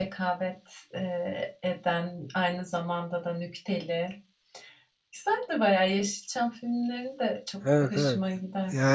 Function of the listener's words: taking over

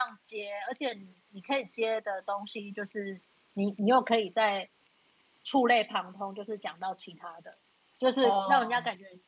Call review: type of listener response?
listening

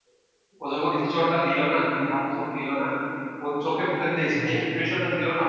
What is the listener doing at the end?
listening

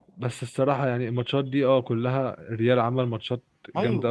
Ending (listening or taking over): taking over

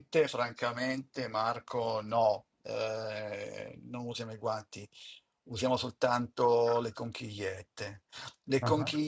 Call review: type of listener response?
listening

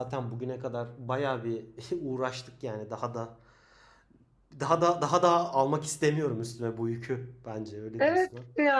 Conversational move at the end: taking over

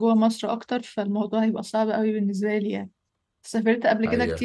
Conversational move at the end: listening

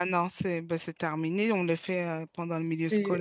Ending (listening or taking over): taking over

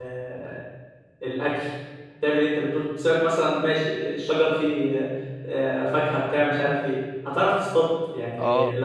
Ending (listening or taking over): taking over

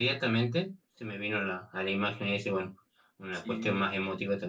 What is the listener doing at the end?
listening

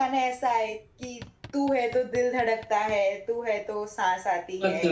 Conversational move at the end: taking over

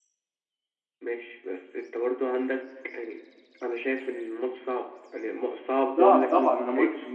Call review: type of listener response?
taking over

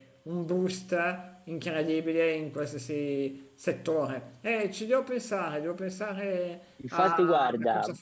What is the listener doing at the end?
taking over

